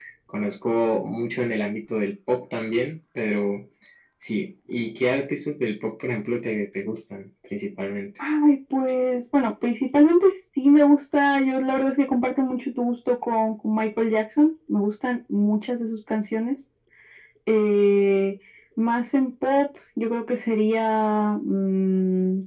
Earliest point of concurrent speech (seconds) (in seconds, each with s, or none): none